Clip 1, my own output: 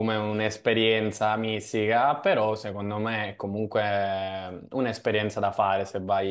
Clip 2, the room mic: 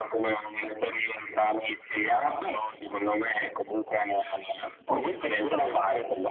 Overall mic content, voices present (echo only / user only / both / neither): both